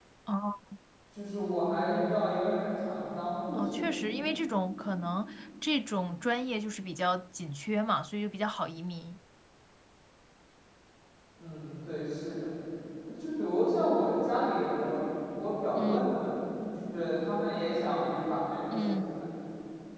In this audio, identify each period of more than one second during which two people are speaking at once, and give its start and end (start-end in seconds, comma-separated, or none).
none